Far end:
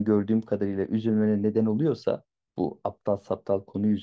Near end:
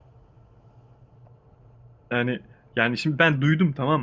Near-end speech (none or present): present